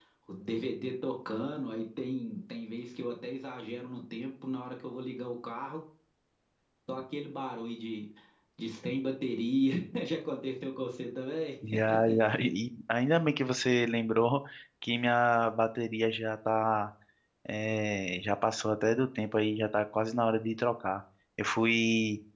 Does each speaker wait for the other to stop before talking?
Yes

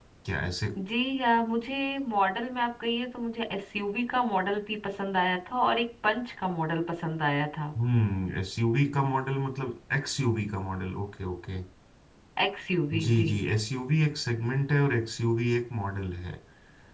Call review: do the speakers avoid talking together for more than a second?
Yes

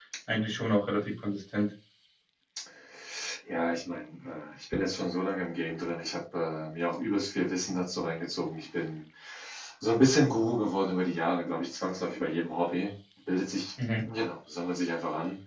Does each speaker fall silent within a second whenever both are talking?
Yes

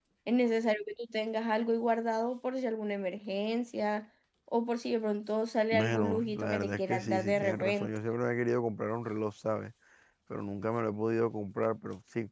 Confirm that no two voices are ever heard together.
No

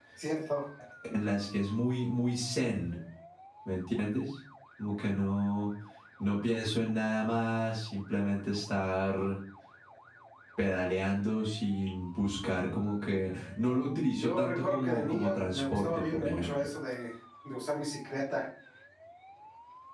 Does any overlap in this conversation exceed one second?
Yes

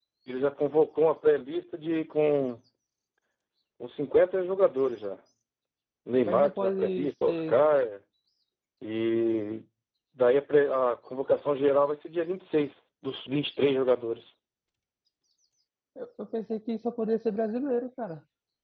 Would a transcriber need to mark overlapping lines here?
Yes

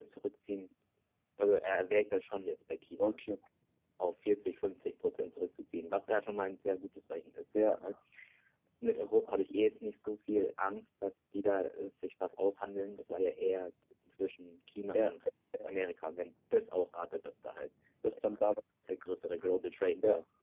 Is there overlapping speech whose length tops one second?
No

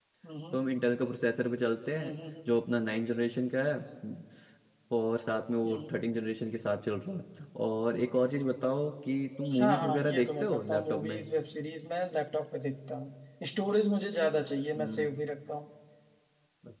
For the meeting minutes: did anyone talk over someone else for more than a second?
Yes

